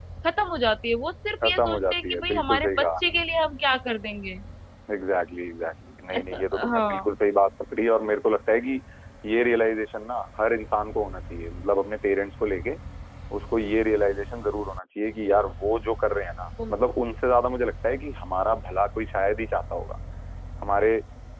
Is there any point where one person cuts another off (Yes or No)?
Yes